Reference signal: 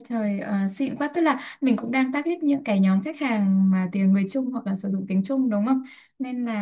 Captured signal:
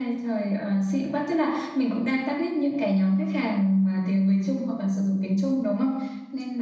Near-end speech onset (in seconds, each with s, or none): none